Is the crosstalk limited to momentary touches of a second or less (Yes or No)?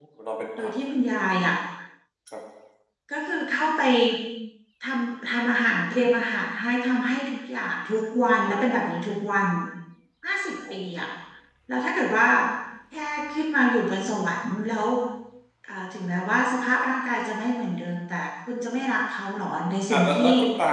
Yes